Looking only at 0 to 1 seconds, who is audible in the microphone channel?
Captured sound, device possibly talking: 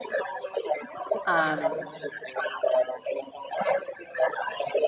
echo only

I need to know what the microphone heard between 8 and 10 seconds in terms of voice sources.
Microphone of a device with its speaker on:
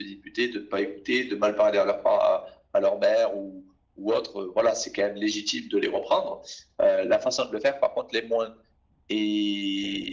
echo only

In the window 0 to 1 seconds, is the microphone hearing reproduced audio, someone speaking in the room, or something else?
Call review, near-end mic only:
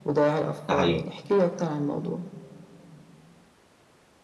both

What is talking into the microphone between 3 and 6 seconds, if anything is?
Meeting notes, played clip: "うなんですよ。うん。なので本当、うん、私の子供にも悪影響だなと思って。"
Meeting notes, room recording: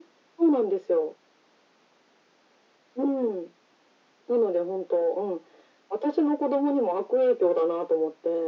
echo only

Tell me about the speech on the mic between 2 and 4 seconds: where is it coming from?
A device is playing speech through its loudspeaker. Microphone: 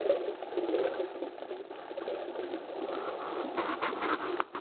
neither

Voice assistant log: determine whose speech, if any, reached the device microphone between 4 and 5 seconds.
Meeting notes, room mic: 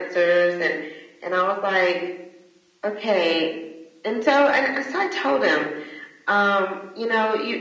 echo only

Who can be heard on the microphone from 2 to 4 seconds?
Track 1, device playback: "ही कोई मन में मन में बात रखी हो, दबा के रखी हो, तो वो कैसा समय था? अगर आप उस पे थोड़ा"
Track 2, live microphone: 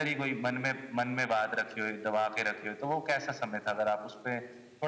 echo only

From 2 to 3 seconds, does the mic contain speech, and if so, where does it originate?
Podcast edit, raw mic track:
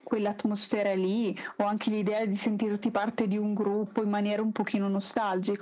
echo only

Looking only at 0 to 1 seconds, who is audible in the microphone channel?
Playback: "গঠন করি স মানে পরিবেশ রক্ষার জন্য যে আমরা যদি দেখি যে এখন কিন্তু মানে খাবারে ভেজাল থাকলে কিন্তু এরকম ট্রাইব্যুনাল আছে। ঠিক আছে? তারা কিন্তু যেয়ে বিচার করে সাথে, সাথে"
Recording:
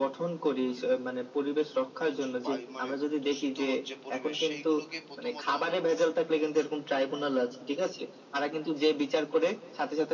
echo only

